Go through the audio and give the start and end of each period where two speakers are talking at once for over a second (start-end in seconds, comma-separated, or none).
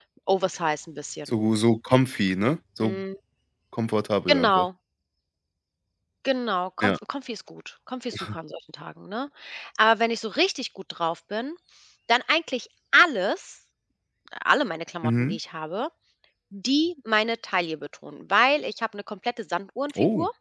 none